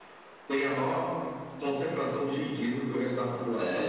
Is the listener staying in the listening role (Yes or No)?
No